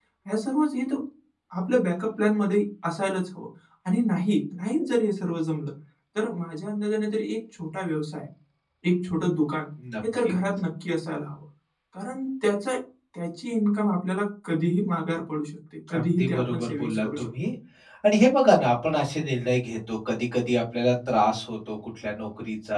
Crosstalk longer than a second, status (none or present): present